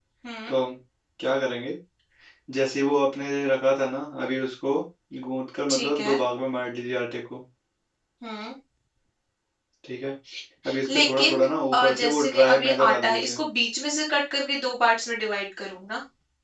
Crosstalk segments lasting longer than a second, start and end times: 10.9-13.4

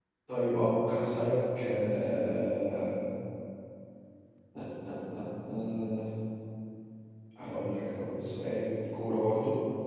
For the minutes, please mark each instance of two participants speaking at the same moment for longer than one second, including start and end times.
none

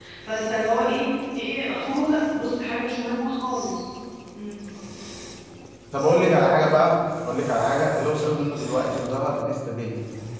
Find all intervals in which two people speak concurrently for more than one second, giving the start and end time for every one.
none

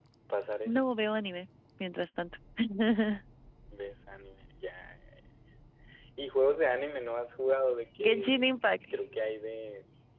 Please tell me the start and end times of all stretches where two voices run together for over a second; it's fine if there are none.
none

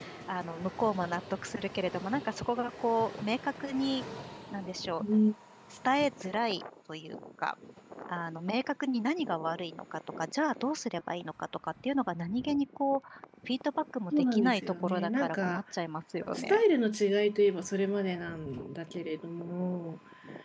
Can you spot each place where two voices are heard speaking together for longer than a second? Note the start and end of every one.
14.1-15.6

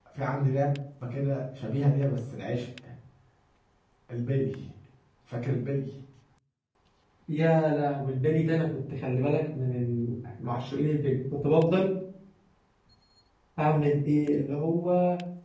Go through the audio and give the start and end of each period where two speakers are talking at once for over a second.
none

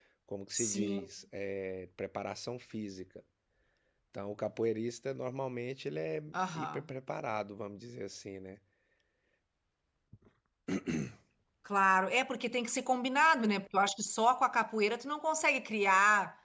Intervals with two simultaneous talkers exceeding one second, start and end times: none

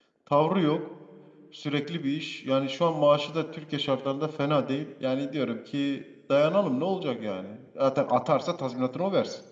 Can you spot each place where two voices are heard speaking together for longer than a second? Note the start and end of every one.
none

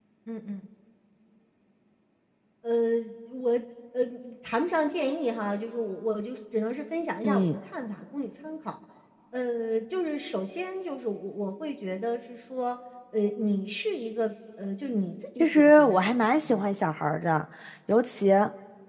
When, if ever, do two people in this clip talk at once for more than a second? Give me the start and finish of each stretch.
15.3-16.7

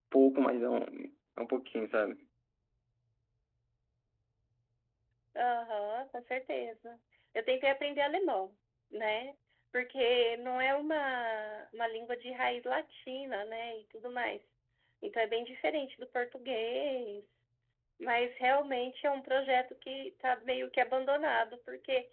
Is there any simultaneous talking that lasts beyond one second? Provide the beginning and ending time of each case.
none

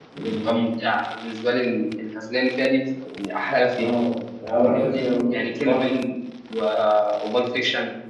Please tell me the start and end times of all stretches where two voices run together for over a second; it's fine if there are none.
4.6-5.9

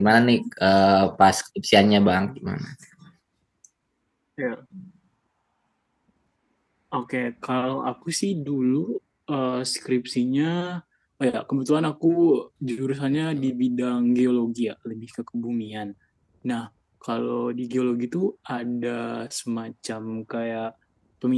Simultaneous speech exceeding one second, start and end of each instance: none

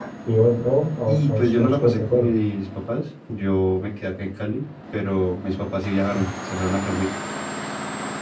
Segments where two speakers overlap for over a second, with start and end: 1.1-2.3

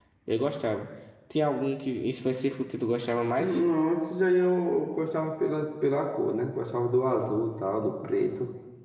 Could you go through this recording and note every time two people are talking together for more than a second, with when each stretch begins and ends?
none

